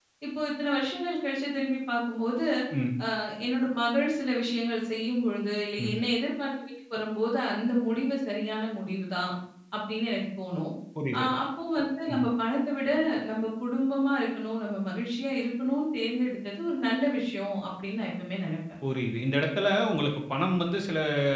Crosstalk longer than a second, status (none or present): none